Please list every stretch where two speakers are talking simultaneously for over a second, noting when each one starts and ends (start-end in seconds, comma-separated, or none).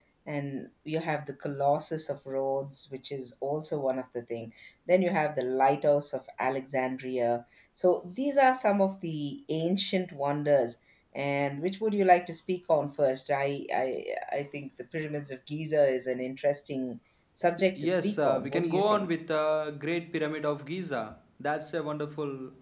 17.8-19.1